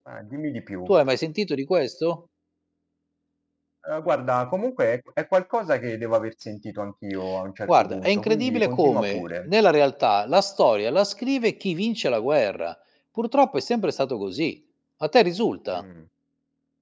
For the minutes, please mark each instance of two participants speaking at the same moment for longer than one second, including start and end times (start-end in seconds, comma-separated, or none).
7.7-9.5